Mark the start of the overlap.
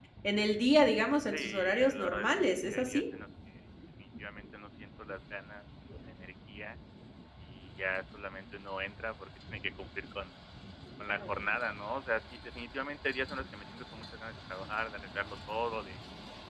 1 s

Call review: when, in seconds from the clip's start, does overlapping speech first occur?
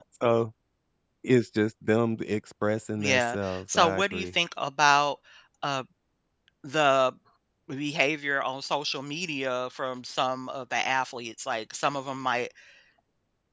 3 s

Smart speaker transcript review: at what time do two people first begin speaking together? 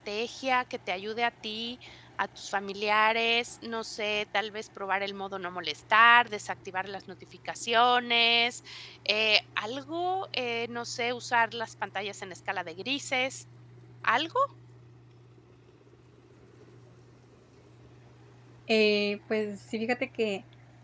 none

